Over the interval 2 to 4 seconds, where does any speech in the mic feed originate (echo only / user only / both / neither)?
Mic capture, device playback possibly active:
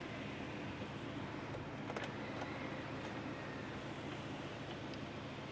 neither